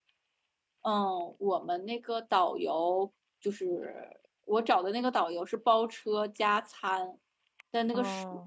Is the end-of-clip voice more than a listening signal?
No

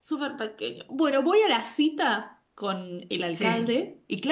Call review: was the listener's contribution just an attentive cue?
Yes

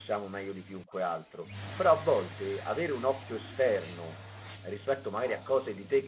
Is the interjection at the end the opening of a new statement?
No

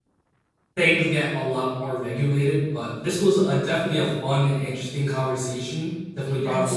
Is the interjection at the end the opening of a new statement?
No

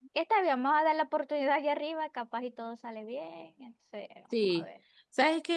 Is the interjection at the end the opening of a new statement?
Yes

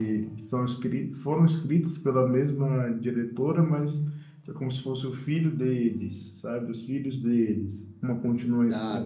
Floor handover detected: No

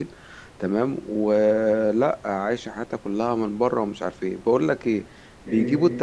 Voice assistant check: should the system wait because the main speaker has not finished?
Yes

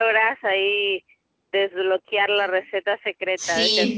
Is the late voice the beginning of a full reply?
Yes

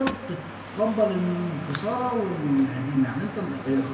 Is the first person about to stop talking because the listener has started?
No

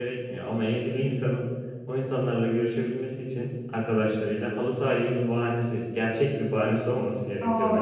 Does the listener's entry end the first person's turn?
Yes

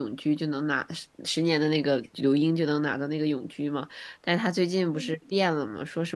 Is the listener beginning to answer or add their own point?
No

